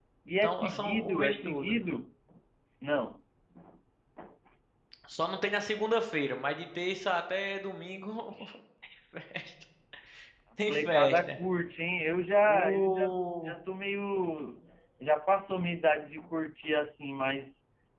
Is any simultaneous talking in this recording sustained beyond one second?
Yes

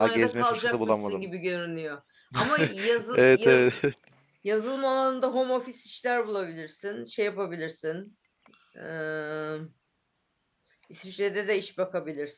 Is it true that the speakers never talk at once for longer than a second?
No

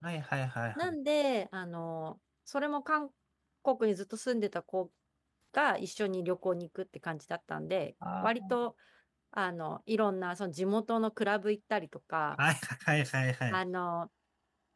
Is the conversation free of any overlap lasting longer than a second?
Yes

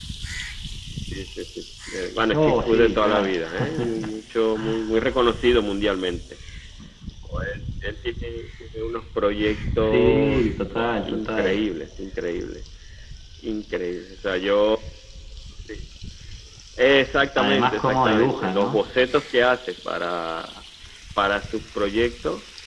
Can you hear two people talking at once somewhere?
Yes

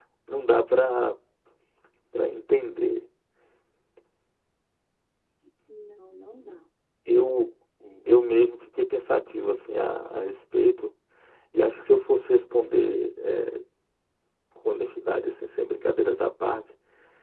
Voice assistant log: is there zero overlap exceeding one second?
Yes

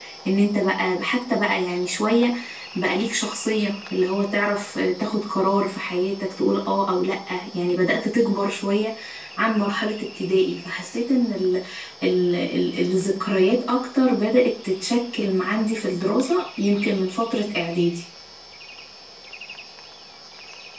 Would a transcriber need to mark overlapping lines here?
No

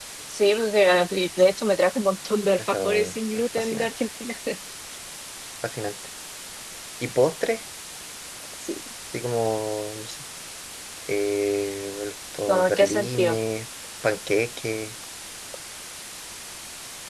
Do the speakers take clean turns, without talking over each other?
No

